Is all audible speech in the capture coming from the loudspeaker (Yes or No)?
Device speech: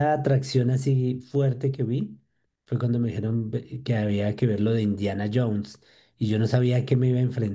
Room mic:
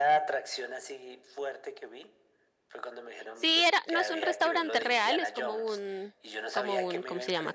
No